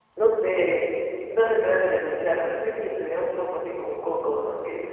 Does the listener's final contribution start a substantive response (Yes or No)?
Yes